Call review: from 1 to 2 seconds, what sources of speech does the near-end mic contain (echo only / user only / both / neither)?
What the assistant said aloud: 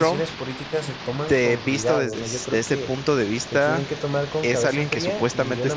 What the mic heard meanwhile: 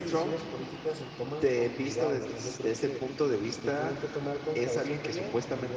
echo only